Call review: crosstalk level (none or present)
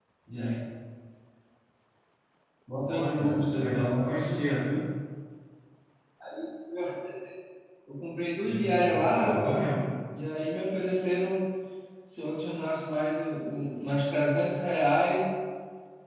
present